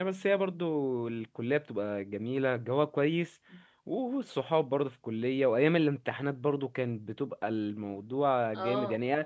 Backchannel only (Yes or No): Yes